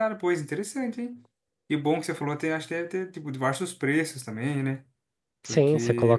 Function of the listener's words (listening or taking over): taking over